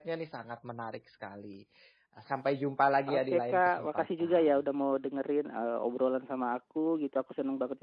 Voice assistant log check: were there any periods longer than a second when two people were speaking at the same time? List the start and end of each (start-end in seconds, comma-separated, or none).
3.1-4.5